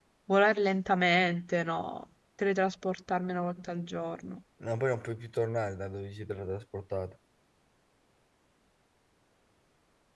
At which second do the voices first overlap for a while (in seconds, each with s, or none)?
none